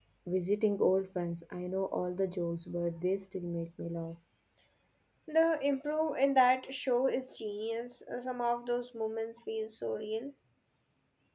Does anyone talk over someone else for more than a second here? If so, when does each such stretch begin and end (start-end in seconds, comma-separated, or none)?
none